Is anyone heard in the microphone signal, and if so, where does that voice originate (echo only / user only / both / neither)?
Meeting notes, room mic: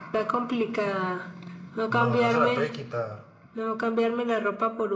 both